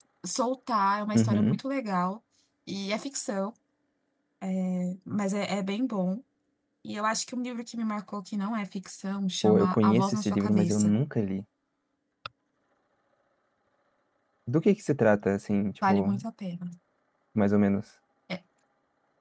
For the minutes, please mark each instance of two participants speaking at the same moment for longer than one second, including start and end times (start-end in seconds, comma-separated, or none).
9.4-10.9